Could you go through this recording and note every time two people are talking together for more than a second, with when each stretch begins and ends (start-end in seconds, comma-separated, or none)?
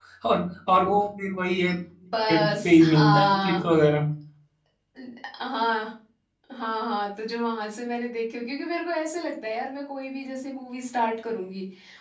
2.3-3.7